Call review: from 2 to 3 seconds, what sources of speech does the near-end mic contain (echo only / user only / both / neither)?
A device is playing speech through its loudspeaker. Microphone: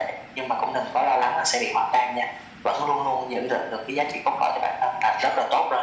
echo only